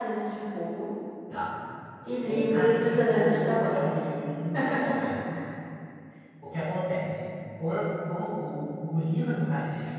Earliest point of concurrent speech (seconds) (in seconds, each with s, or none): 2.2 s